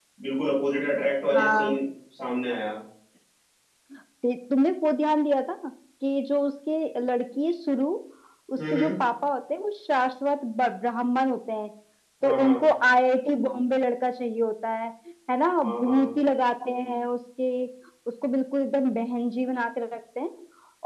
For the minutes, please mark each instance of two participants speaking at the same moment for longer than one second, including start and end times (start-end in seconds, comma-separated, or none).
none